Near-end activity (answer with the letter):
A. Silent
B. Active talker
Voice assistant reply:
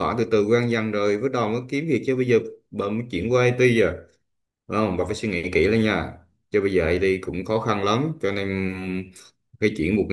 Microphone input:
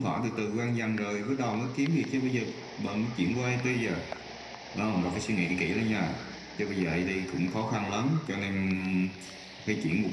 A